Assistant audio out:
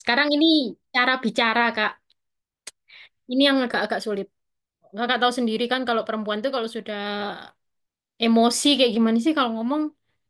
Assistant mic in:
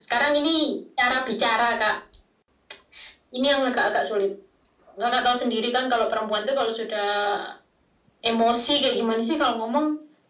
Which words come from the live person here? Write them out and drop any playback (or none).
none